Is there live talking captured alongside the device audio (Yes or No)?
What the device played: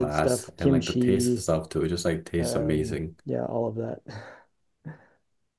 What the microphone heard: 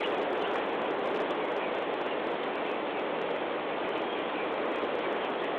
No